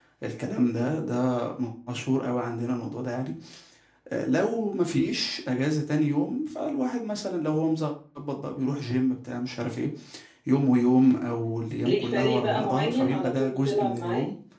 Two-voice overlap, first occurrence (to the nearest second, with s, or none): 12 s